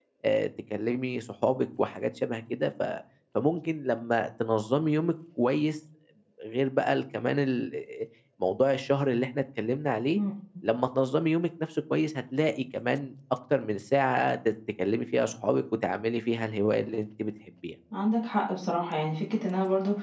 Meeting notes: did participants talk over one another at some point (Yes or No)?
No